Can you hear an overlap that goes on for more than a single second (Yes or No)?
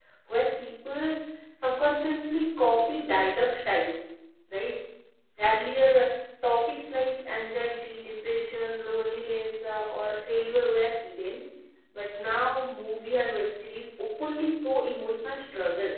No